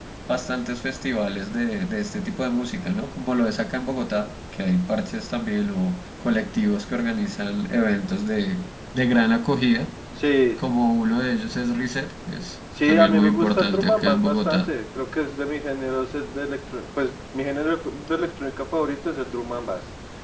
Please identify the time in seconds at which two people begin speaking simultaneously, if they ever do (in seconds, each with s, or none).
12.8 s